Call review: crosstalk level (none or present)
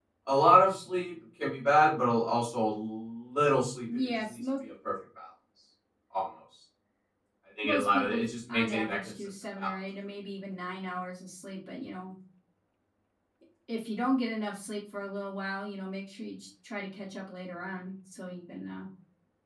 present